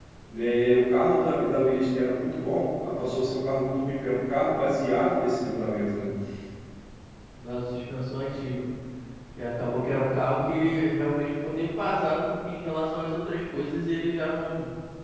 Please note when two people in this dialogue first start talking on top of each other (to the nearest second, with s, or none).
none